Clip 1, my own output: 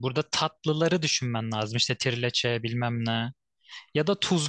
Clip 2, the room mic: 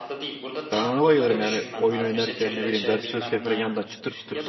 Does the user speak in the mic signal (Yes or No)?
Yes